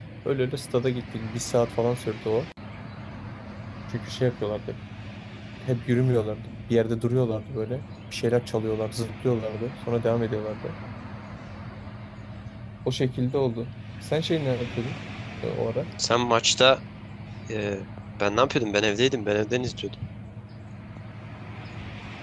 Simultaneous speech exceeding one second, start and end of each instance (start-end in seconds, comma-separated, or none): none